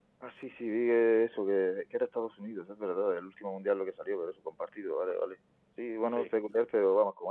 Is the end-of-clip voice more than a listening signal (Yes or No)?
No